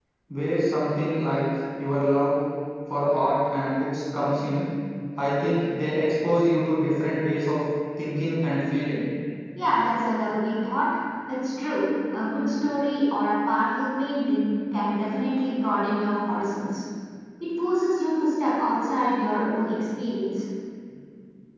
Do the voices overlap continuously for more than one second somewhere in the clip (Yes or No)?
No